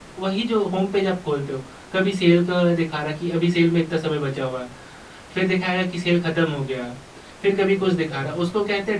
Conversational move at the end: listening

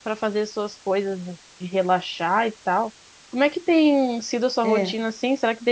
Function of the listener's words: listening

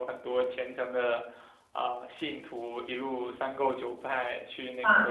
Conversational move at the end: listening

